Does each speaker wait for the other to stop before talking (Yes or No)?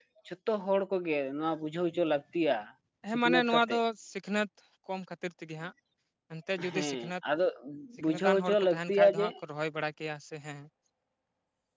No